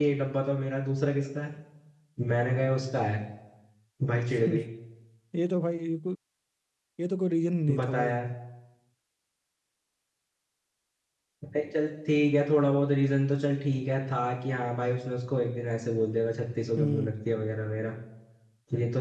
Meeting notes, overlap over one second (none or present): none